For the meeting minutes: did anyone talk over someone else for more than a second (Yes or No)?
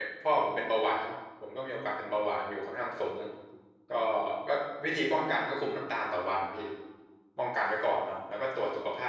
No